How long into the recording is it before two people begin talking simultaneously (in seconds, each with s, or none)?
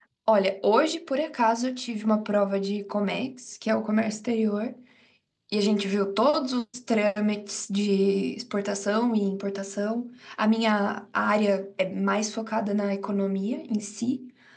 none